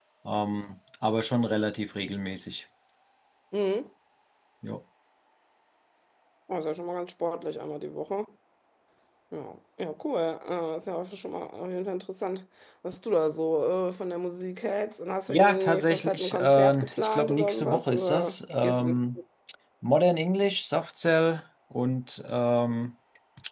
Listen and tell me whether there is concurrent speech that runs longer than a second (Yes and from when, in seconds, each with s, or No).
Yes, from 15.3 s